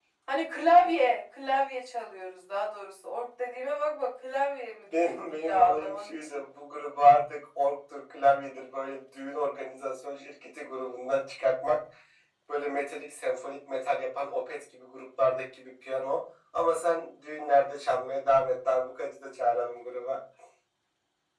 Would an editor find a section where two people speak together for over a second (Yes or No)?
Yes